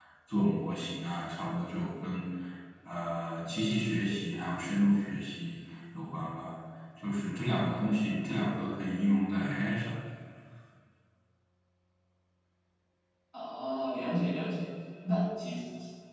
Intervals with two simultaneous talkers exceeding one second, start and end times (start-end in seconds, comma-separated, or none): none